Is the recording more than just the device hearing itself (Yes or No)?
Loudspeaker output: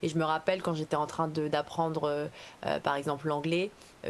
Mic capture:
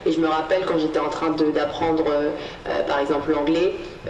No